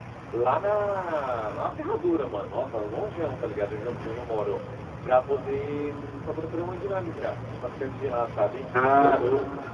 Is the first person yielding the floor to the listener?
Yes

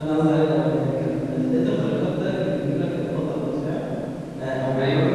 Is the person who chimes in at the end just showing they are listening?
Yes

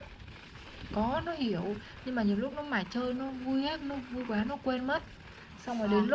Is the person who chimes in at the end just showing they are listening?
Yes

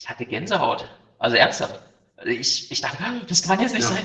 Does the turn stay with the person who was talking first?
Yes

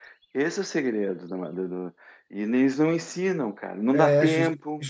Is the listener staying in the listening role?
No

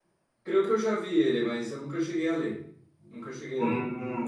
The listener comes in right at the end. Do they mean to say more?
Yes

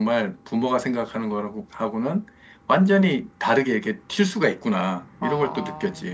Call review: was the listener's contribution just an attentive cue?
No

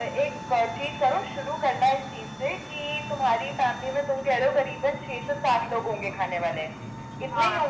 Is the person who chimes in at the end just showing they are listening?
No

